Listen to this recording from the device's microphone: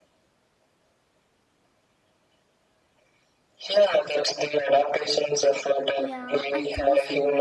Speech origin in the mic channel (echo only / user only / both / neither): both